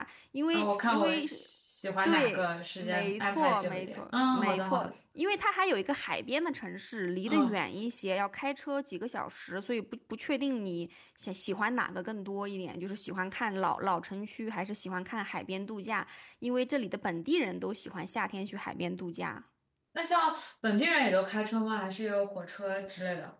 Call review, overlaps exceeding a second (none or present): present